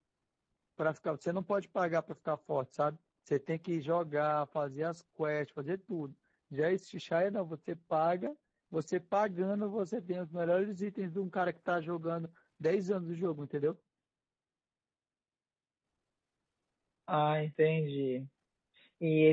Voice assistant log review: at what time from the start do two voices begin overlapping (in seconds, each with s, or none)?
none